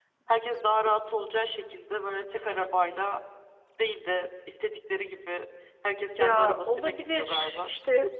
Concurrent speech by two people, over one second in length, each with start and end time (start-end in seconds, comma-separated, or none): 6.2-7.7